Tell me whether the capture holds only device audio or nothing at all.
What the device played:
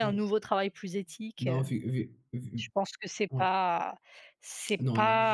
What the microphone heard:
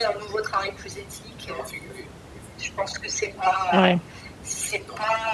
No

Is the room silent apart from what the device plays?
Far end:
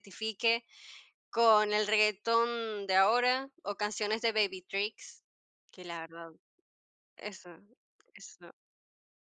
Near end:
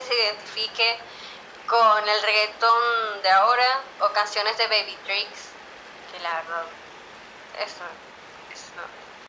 Yes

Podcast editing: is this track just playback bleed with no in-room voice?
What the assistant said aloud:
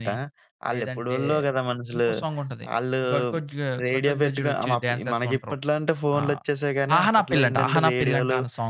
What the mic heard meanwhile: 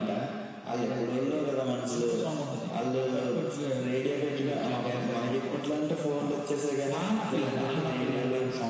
Yes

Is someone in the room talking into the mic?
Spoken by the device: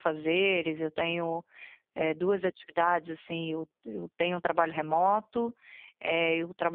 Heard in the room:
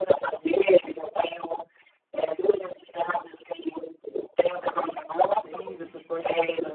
Yes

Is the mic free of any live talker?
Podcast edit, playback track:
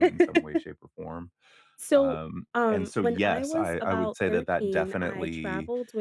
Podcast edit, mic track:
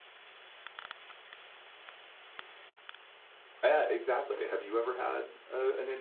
No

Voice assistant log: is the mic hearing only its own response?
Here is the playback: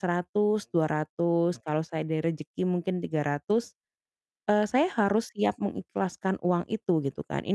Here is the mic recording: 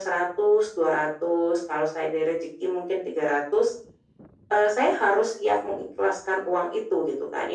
Yes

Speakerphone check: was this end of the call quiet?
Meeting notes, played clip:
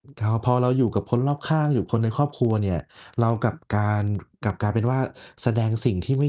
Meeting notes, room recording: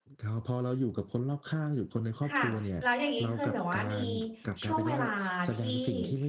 No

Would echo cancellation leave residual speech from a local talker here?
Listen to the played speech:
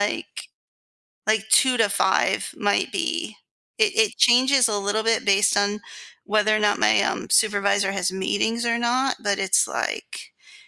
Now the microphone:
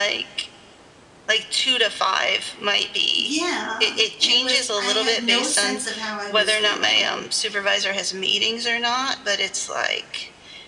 Yes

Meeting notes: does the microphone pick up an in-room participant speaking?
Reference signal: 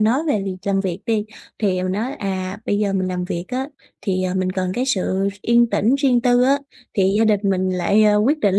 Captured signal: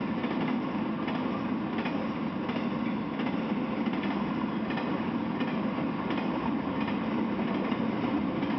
No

